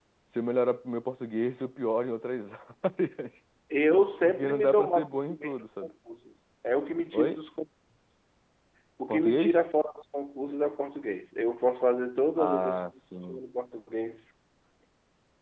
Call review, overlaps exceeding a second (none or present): present